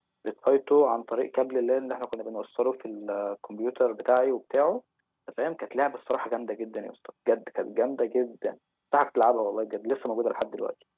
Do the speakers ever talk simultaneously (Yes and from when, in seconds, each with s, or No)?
No